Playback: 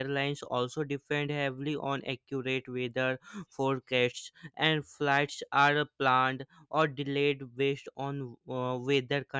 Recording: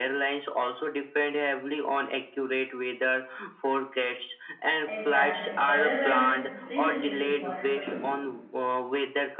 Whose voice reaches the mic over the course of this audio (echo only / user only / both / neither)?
both